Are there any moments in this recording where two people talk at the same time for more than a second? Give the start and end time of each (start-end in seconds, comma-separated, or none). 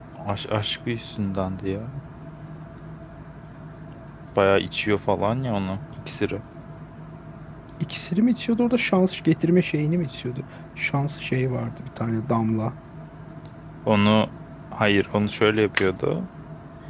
none